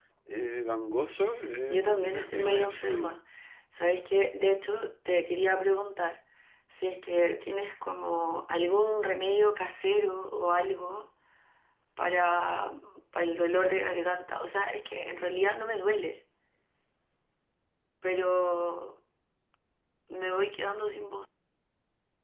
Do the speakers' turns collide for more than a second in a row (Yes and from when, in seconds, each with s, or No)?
Yes, from 1.7 s